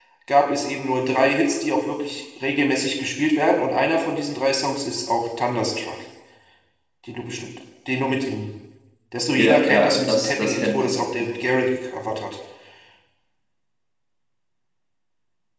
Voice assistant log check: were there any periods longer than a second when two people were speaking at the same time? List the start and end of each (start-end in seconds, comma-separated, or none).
9.3-10.9